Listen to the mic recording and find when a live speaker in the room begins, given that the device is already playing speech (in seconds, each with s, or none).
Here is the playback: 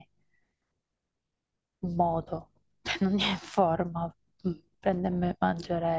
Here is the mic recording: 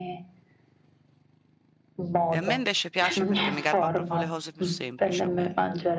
2.3 s